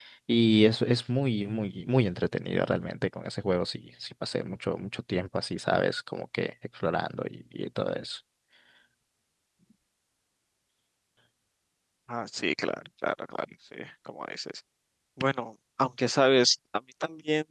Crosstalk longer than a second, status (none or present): none